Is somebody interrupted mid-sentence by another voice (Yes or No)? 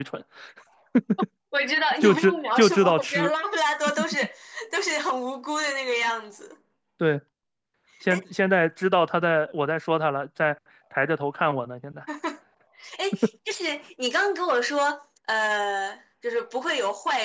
Yes